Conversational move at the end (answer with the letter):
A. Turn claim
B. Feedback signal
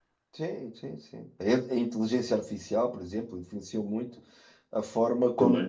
B